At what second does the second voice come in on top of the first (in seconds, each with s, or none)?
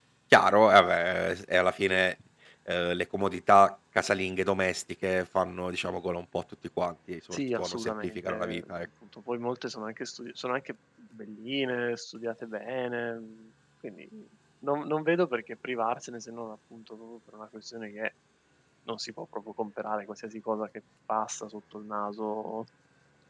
7.3 s